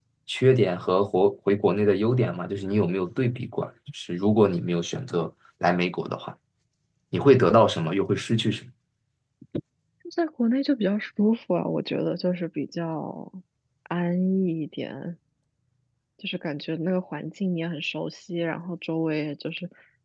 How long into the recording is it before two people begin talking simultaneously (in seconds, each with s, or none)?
none